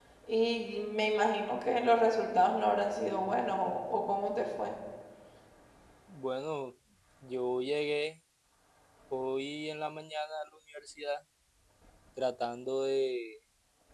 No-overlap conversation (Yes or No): Yes